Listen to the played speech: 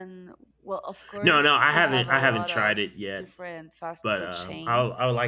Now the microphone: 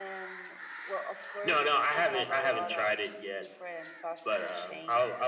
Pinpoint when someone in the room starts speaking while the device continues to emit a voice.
none

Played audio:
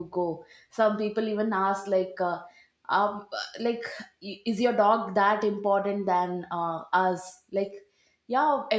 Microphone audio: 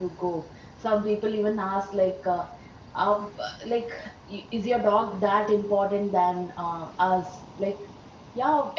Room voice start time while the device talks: none

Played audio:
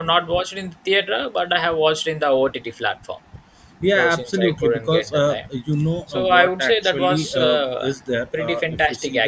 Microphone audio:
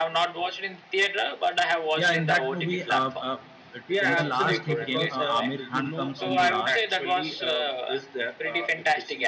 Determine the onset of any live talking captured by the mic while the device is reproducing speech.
2 s

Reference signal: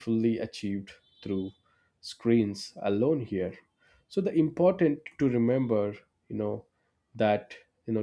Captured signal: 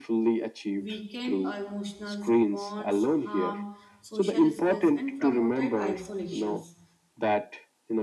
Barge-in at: 1 s

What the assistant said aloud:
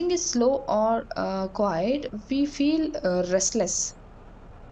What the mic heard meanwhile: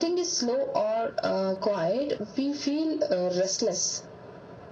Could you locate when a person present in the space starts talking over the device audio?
none

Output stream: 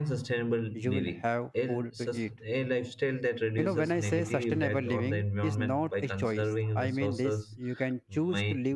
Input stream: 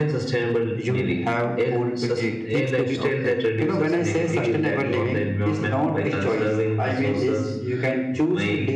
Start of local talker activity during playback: 2 s

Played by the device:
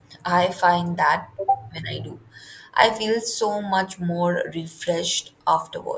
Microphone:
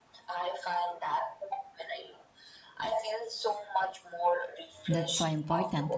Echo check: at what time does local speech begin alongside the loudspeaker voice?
5 s

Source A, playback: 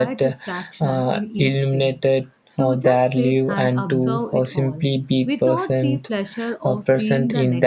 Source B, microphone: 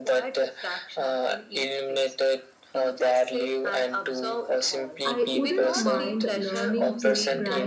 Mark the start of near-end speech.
5 s

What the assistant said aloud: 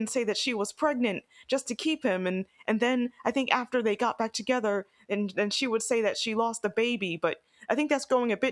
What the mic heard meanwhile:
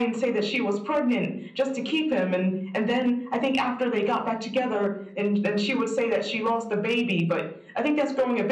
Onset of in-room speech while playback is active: none

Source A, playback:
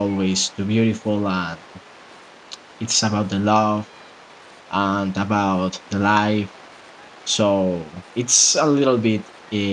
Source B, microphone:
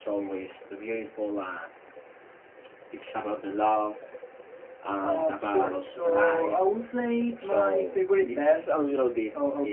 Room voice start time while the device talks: 5 s

